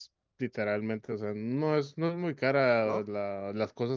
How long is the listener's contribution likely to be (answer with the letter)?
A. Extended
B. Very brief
B